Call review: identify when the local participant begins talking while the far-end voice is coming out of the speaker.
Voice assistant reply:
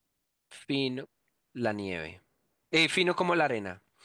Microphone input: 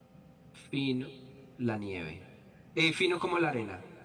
none

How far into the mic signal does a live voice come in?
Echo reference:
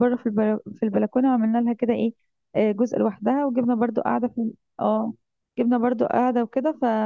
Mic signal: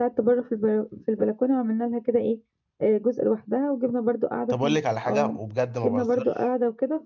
4 s

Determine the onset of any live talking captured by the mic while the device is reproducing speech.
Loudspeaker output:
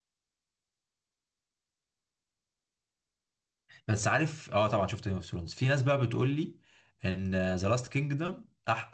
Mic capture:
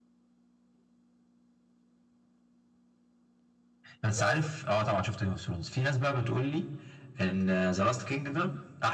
4 s

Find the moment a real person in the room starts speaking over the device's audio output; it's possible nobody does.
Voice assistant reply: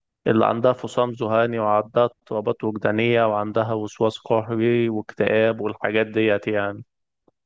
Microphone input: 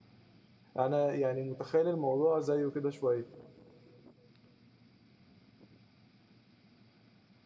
1 s

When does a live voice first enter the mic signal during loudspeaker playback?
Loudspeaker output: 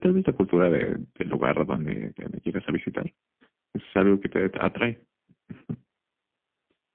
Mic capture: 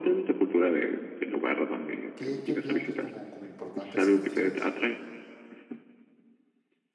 2 s

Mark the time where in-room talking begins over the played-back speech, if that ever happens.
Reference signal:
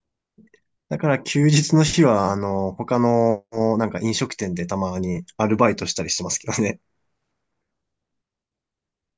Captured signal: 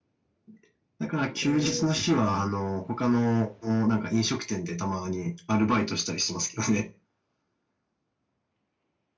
1 s

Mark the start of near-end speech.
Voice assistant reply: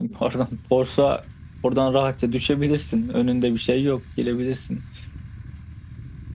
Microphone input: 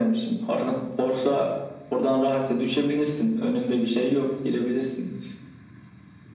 none

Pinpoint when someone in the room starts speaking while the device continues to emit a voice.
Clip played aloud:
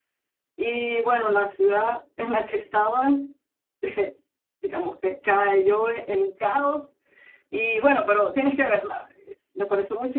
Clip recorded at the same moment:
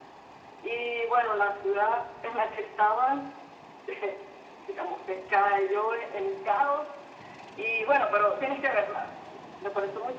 none

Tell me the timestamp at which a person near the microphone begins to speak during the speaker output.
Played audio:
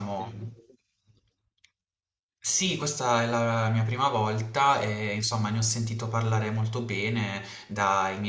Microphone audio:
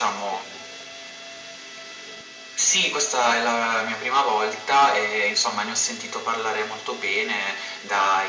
none

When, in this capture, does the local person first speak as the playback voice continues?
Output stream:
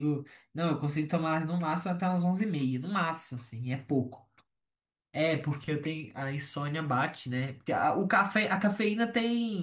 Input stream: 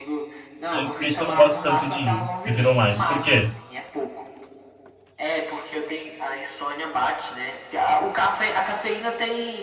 1 s

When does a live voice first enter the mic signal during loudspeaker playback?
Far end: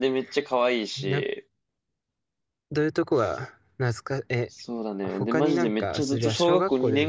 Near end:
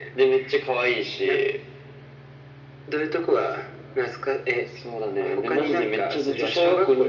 none

